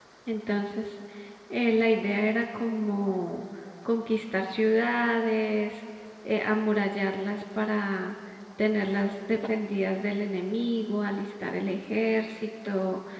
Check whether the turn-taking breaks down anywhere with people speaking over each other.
No

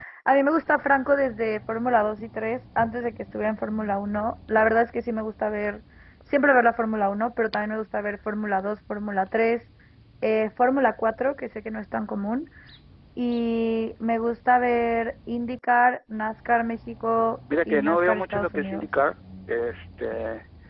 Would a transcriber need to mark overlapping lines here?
Yes, from 17.5 s

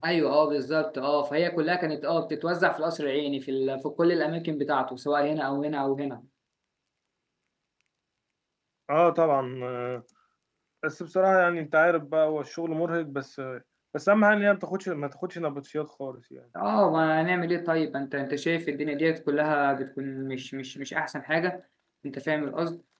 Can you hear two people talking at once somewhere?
No

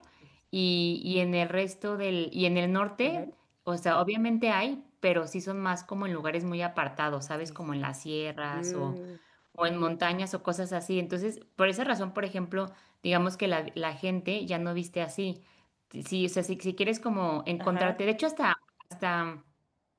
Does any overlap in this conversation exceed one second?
No

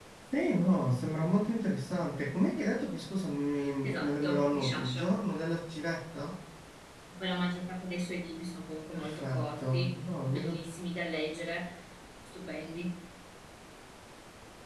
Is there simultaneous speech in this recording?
Yes, from 3.8 s

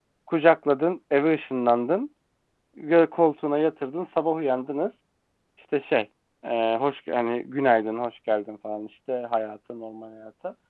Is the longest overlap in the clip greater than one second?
No

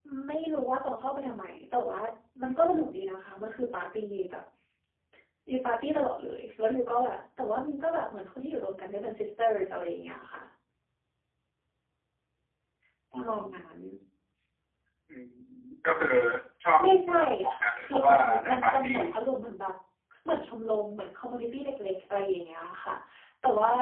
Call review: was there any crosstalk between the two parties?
Yes, from 17.6 s

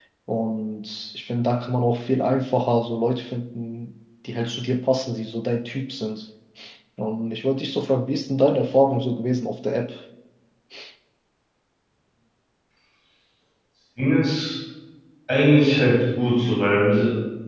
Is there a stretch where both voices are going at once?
No

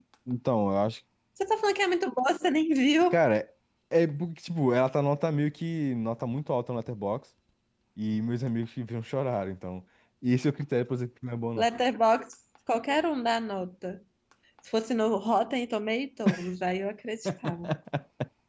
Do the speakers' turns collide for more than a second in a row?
No

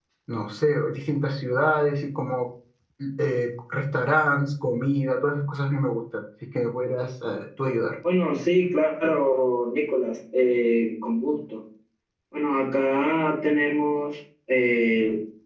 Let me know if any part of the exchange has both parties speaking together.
No

